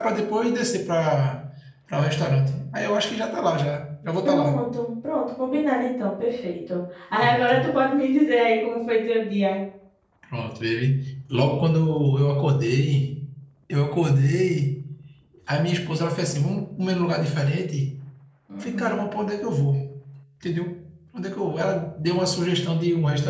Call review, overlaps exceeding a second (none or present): none